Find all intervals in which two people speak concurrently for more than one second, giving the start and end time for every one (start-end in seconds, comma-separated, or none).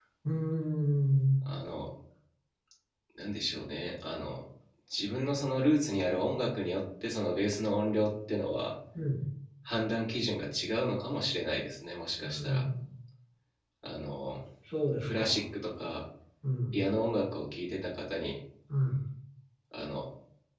none